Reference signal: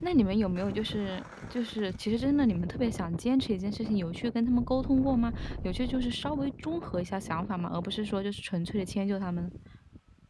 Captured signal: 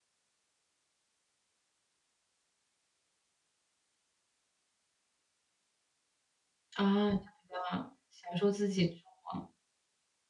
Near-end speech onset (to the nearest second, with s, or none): 7 s